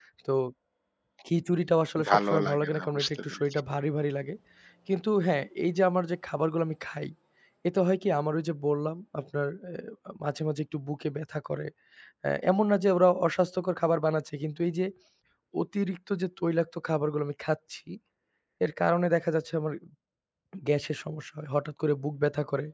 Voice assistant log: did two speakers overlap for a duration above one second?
Yes, from 2.1 s

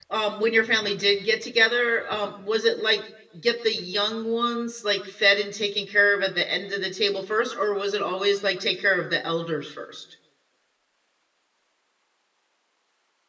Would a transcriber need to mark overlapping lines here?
No

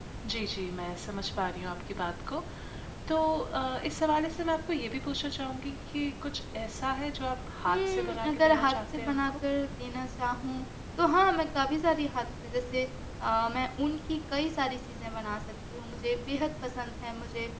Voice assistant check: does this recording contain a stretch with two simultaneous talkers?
Yes, from 7.7 s

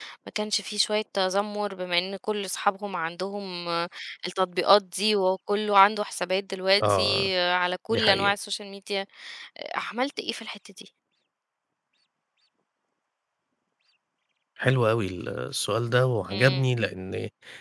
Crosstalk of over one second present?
No

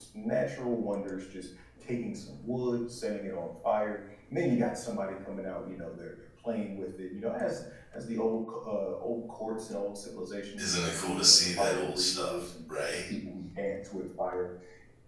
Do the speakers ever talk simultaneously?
Yes, from 10.6 s

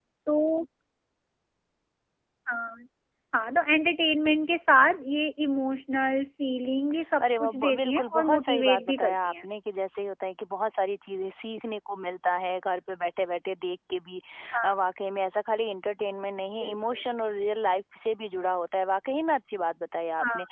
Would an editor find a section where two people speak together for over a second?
Yes, from 7.4 s

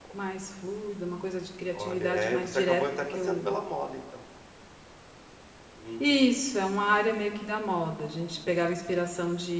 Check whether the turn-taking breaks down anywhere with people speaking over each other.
Yes, from 1.8 s

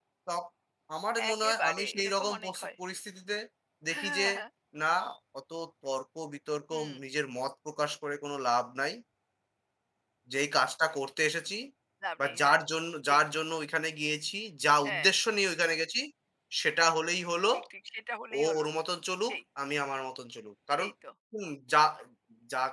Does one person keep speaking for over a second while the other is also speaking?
Yes, from 1.3 s

